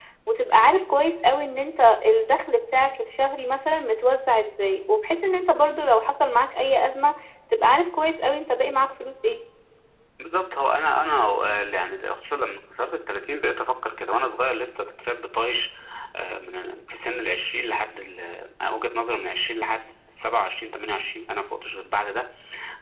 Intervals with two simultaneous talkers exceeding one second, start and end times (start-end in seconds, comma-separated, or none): none